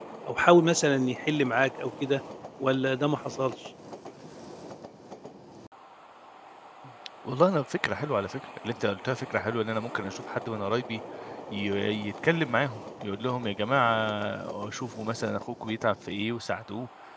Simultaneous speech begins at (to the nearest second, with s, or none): none